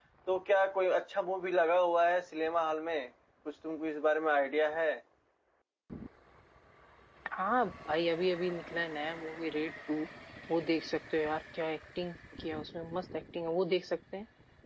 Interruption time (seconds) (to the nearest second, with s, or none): none